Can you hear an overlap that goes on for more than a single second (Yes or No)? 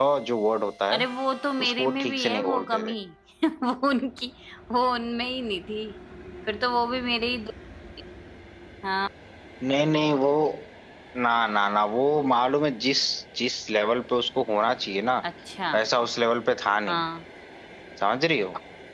Yes